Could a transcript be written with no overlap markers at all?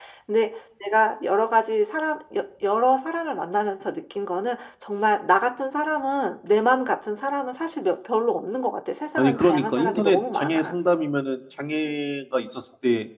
No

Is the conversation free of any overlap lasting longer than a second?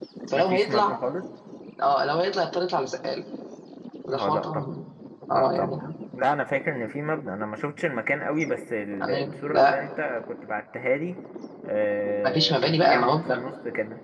No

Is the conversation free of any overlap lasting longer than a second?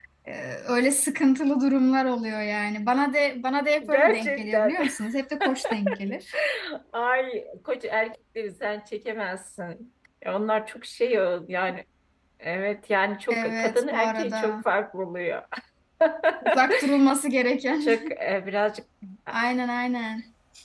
No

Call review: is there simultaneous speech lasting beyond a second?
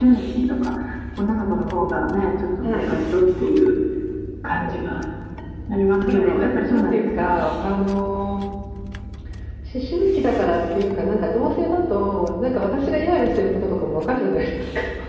Yes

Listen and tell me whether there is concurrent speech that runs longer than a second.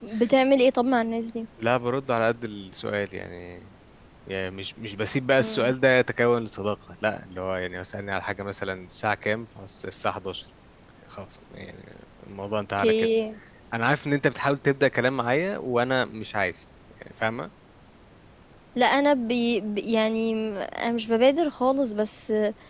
No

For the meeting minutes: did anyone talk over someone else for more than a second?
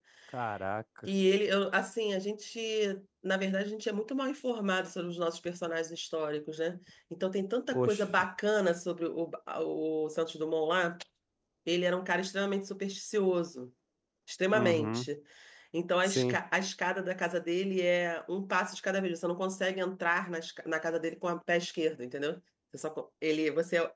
No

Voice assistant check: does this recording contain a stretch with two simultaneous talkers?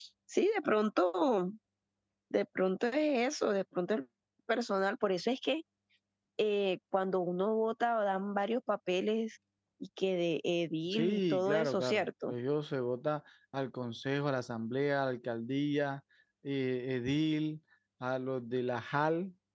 Yes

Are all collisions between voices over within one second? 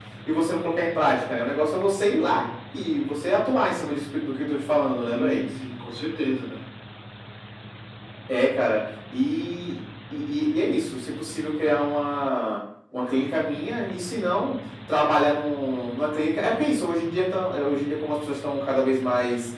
Yes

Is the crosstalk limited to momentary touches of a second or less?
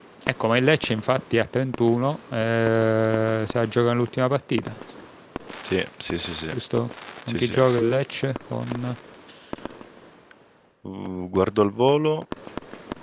Yes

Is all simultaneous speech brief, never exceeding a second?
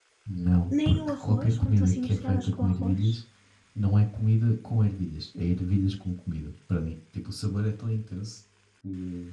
No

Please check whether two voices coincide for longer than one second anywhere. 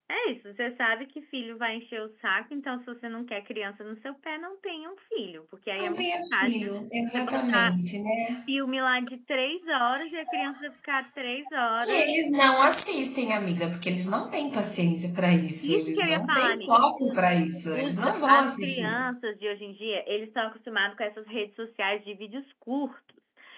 Yes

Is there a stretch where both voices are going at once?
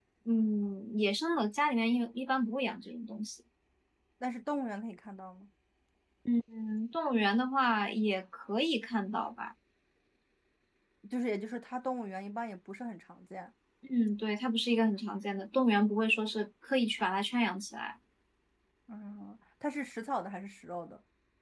No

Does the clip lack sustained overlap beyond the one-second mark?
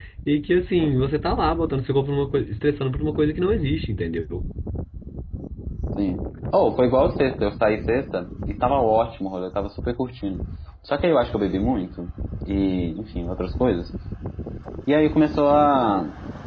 Yes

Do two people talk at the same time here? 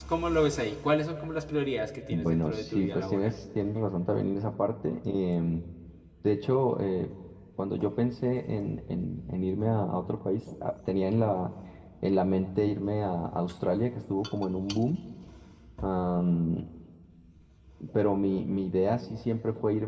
Yes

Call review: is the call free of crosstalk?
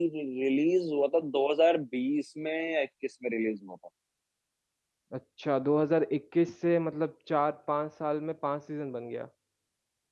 Yes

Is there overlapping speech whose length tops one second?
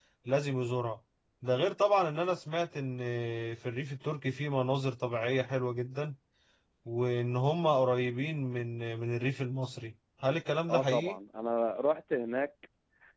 No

